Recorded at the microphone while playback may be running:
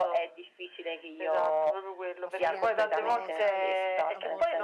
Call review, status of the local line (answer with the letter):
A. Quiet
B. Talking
B